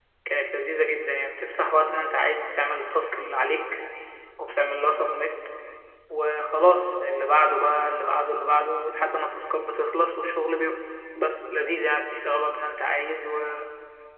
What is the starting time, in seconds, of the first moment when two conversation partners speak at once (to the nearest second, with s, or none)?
none